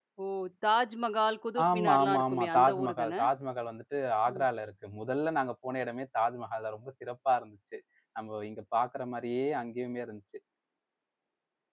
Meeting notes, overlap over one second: present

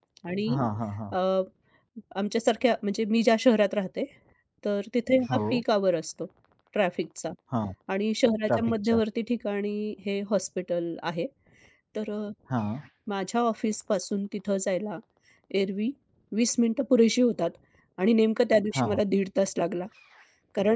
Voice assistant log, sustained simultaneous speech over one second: none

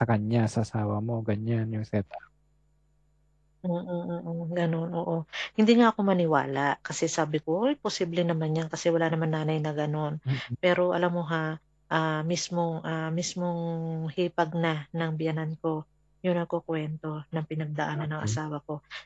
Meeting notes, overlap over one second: none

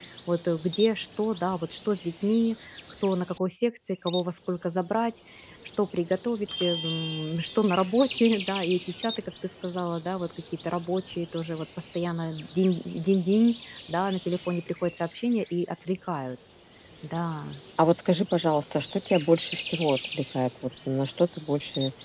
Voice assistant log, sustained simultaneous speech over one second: none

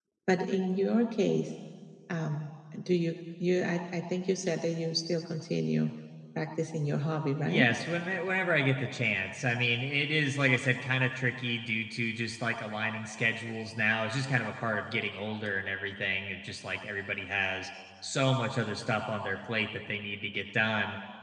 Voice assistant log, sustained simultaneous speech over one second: none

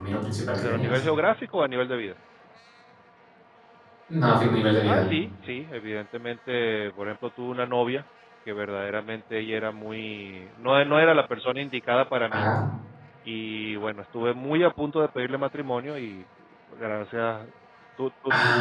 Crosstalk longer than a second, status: none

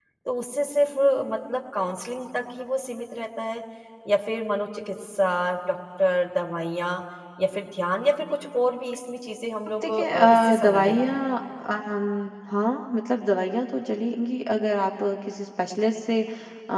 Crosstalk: present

